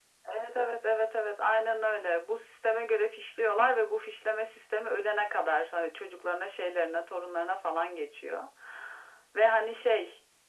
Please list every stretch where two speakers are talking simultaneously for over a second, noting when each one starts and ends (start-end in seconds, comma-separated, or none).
none